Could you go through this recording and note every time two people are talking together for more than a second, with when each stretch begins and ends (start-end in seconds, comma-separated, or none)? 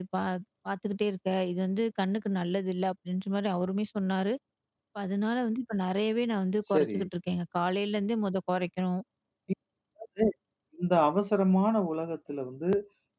none